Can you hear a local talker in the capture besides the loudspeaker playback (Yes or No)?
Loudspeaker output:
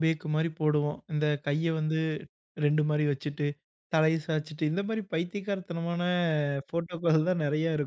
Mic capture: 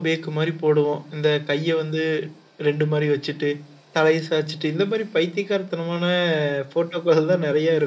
No